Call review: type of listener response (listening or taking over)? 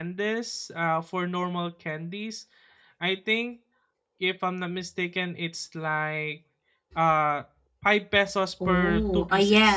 taking over